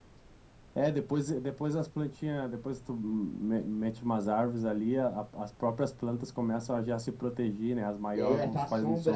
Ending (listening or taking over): taking over